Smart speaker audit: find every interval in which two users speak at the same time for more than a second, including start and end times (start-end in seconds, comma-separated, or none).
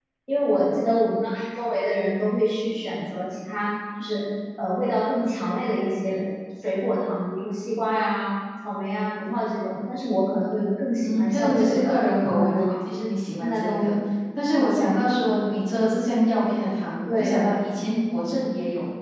11.0-12.8